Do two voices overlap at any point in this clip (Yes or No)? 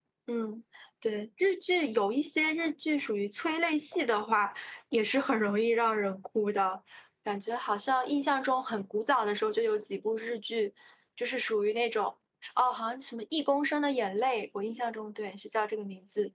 No